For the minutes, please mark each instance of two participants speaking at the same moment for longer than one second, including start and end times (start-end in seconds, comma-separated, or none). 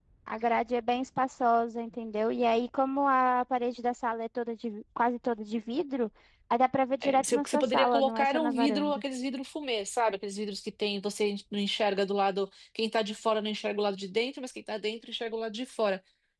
7.0-9.0